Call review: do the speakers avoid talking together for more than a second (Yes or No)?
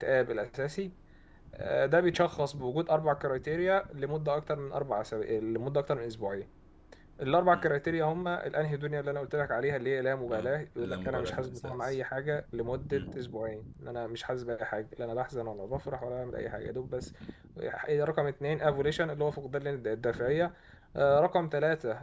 No